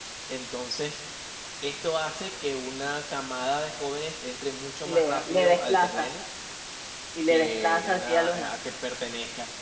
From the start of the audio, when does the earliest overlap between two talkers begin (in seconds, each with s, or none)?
4.8 s